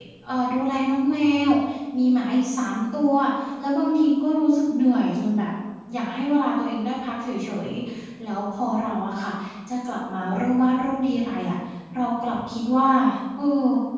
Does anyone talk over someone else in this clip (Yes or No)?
No